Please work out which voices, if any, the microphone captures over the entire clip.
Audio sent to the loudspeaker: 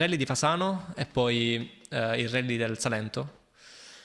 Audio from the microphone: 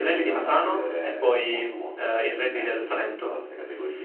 both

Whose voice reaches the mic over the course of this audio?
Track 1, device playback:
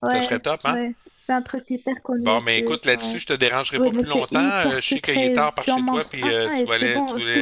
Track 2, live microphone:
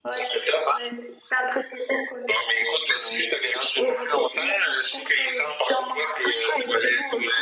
echo only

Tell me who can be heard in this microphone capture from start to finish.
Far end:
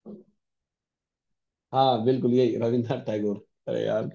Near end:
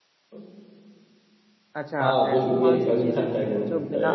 both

